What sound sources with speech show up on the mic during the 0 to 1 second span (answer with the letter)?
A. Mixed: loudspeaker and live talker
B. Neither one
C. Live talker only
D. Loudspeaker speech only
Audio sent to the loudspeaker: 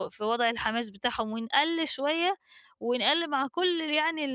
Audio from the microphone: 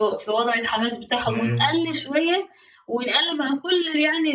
D